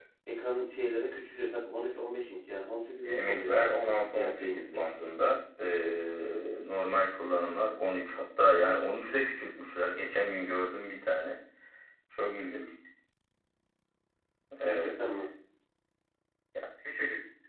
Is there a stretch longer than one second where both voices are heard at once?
Yes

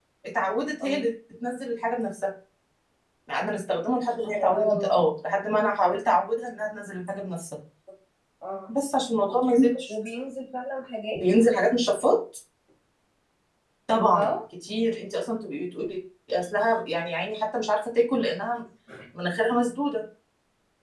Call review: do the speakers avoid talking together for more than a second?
Yes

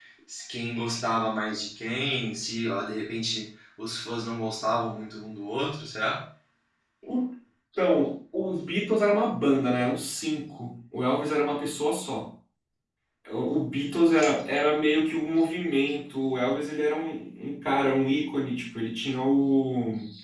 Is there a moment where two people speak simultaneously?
No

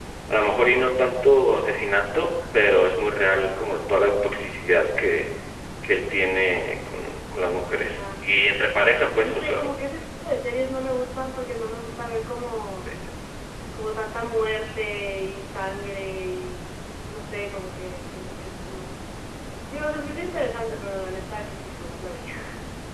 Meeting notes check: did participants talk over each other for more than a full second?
No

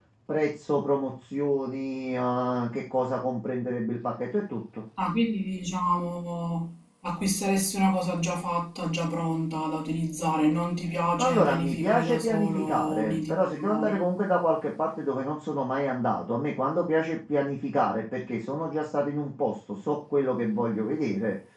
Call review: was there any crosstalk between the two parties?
Yes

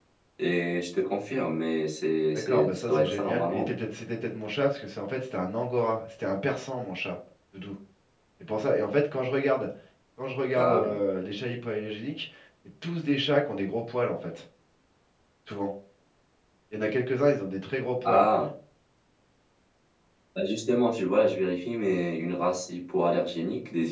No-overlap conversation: No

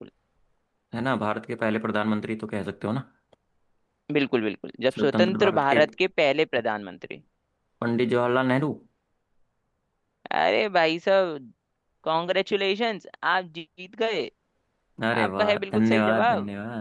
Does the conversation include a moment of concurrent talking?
Yes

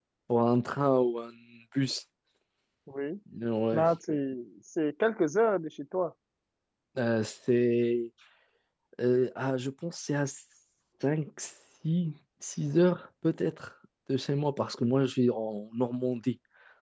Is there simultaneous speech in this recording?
No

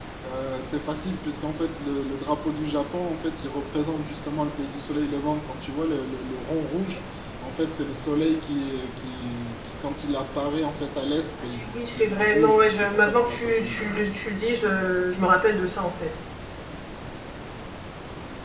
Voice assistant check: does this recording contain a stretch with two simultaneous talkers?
Yes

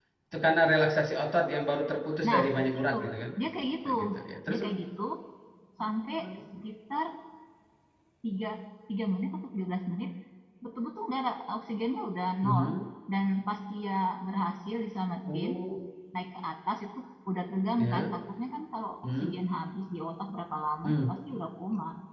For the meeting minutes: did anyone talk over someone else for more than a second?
No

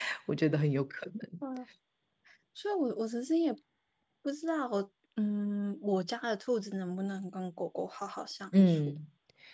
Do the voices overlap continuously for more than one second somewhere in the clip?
No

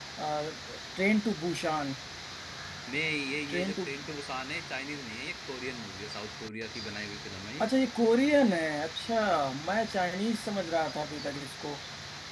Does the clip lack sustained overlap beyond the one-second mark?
Yes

